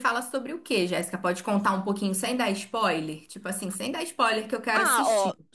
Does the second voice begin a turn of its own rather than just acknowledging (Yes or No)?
Yes